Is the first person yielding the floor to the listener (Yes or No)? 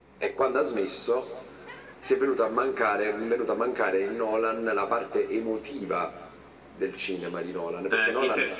Yes